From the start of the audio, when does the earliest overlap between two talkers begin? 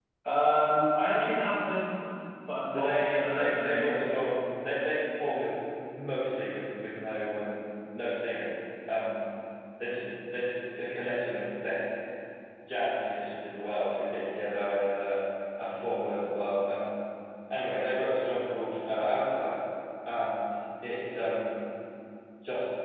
2.7 s

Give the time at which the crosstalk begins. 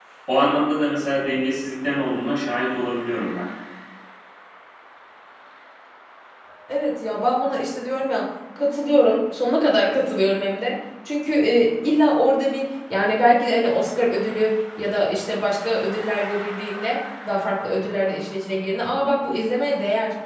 none

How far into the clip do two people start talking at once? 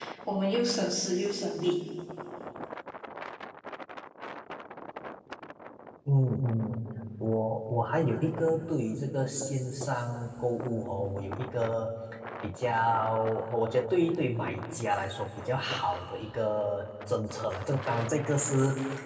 none

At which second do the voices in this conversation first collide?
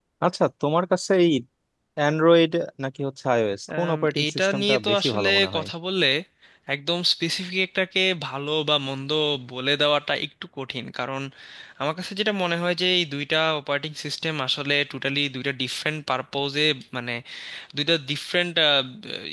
3.7 s

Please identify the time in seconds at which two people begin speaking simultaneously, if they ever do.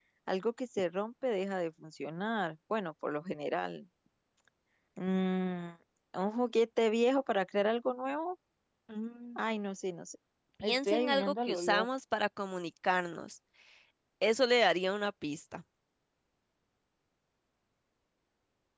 10.6 s

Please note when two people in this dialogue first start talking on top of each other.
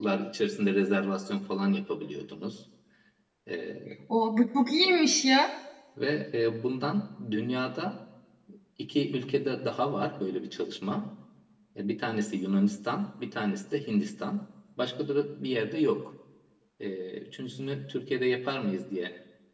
none

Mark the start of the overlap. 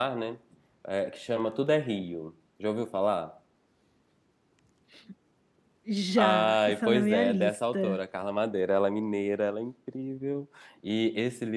6.2 s

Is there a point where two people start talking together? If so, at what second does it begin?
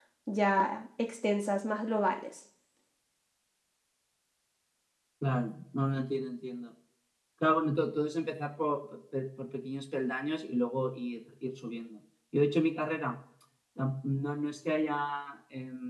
none

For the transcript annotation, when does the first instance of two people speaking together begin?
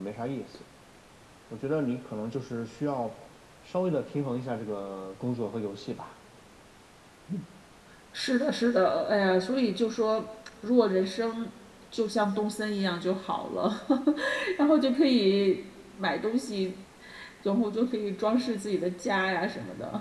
none

